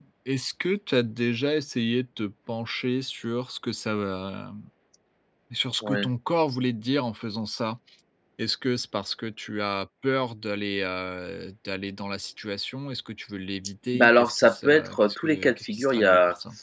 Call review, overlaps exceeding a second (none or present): present